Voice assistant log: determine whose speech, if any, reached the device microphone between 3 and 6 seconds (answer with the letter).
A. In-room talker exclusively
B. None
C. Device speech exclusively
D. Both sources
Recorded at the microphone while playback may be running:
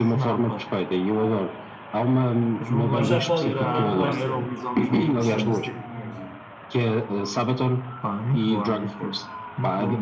D